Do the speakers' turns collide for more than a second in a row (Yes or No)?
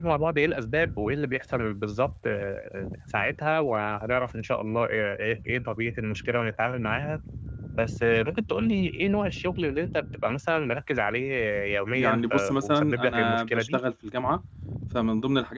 Yes